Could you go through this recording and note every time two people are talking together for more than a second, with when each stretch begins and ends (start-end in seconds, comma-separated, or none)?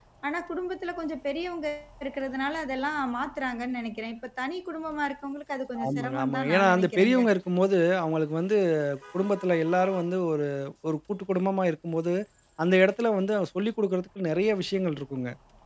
5.9-7.2